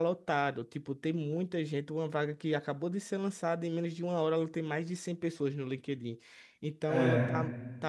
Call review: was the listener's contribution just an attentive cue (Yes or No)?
Yes